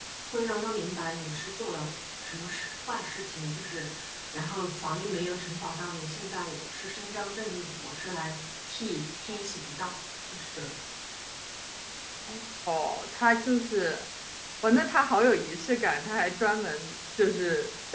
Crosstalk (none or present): none